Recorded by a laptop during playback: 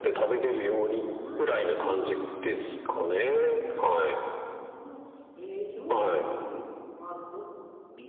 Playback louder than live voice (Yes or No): Yes